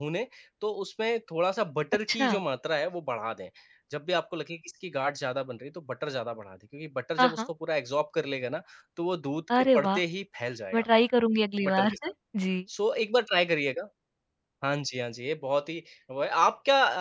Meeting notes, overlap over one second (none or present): none